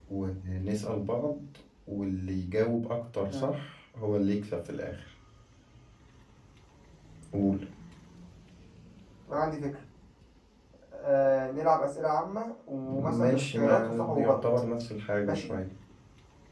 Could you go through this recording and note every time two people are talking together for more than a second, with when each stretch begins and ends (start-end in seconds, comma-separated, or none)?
12.9-14.4